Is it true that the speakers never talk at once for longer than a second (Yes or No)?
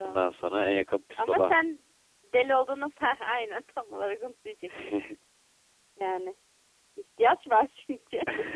Yes